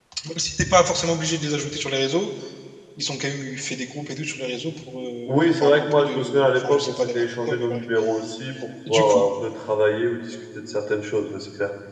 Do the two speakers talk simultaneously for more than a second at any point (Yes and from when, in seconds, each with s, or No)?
Yes, from 5.3 s